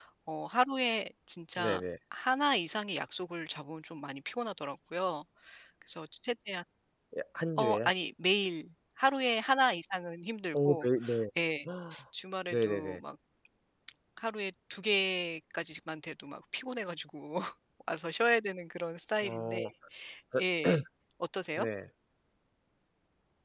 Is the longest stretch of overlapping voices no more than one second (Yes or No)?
Yes